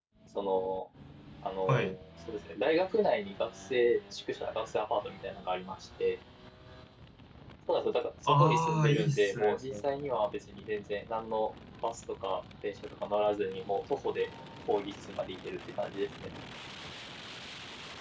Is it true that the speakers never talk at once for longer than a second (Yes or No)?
No